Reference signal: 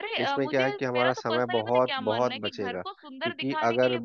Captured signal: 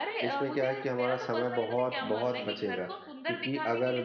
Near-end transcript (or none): none